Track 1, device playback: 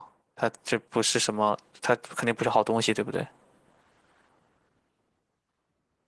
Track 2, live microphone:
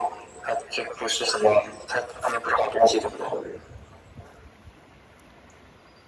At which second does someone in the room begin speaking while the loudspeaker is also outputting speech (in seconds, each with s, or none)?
none